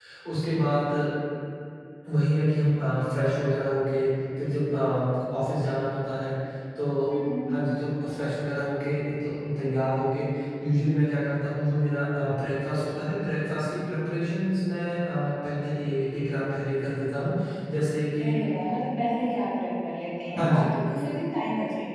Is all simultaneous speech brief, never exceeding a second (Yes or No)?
Yes